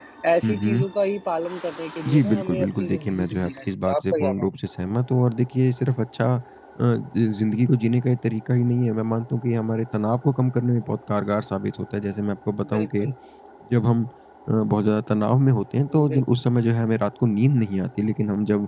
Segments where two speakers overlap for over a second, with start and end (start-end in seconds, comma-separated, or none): 2.1-4.5